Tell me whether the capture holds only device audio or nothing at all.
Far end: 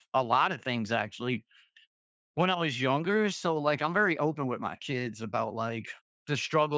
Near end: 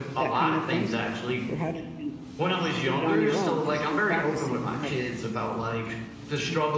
No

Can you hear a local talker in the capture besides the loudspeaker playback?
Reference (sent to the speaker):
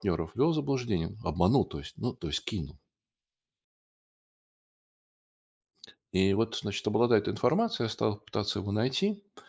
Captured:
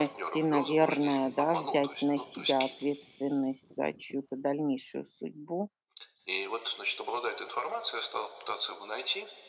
Yes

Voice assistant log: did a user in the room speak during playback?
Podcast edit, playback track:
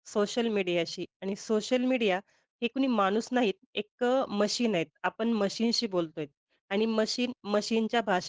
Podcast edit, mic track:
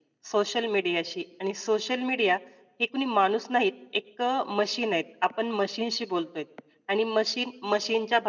No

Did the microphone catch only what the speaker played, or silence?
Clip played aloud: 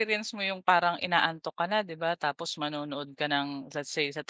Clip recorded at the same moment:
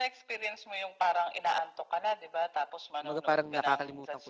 No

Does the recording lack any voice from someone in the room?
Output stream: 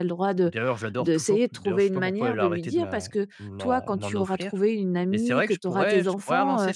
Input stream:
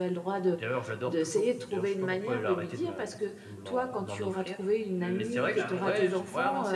No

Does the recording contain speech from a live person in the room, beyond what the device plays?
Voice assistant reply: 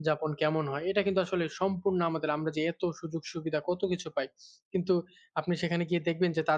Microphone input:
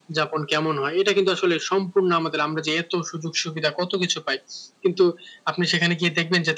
No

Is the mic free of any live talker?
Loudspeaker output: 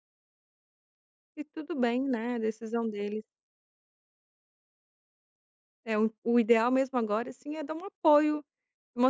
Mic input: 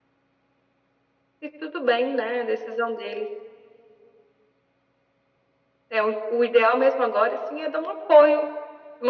Yes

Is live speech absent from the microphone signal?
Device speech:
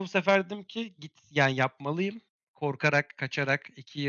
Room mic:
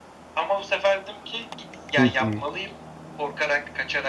No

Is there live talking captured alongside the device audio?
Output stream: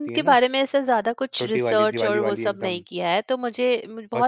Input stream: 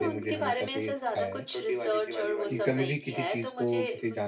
Yes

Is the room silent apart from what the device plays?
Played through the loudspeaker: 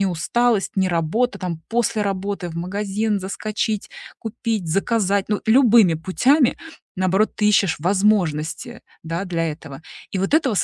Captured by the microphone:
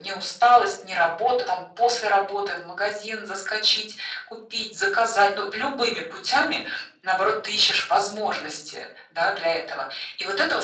Yes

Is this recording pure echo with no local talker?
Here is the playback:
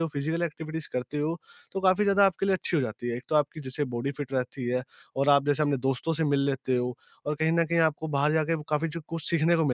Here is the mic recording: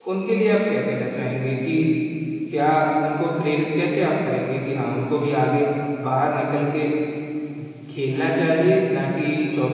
No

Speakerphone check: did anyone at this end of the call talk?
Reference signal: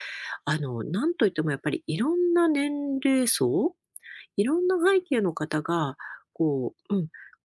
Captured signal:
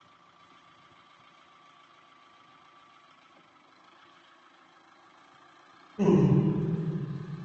Yes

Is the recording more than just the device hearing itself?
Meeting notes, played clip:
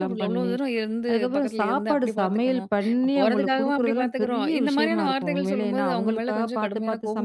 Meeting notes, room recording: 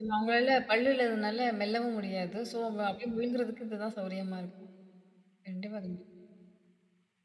Yes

